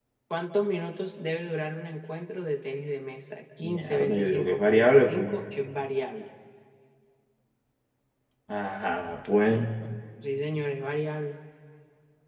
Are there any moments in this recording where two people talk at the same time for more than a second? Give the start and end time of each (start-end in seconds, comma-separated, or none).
3.6-5.4